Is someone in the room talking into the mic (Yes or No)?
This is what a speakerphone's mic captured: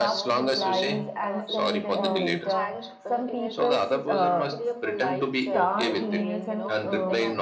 Yes